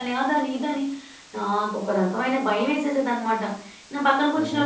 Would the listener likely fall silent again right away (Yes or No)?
Yes